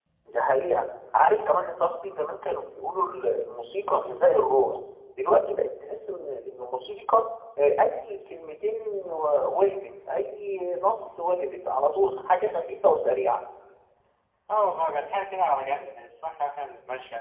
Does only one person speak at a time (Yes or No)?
Yes